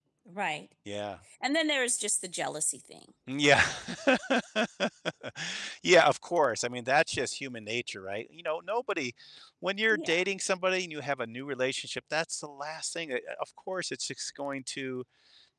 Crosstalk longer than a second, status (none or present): none